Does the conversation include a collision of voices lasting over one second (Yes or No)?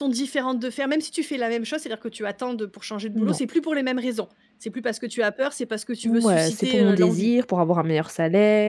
Yes